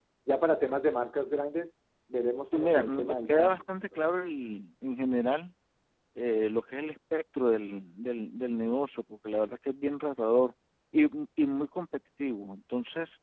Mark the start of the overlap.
2.4 s

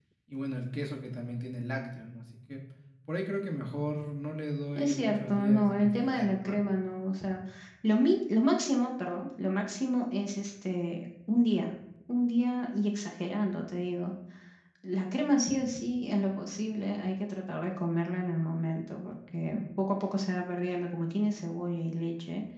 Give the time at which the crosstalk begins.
4.8 s

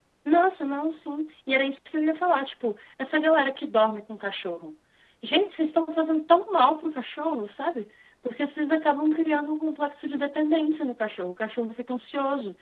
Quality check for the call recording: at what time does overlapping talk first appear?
none

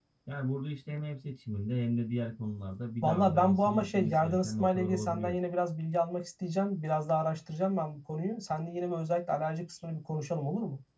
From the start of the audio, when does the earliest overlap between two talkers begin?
3.0 s

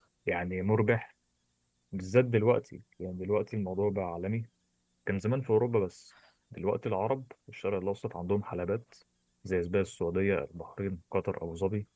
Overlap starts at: none

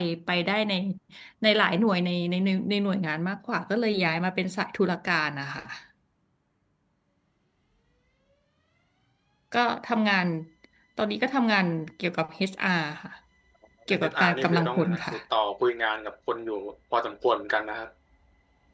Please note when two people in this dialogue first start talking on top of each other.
13.9 s

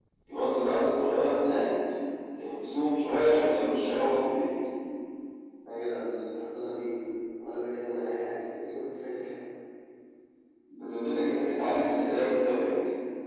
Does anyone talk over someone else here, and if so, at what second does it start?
none

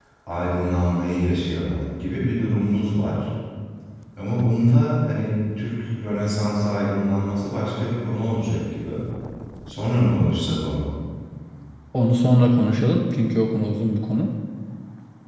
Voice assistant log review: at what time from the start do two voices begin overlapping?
none

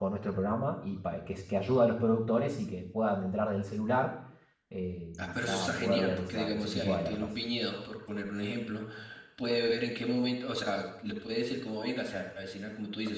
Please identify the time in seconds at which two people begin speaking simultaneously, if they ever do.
5.2 s

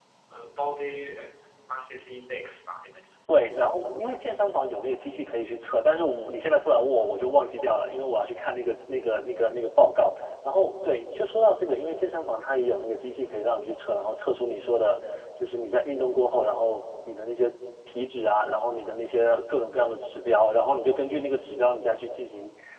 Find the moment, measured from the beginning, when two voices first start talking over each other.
none

